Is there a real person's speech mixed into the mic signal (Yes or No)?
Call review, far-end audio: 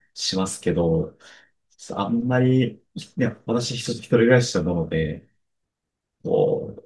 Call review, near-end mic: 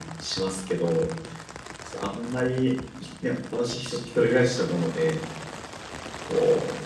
No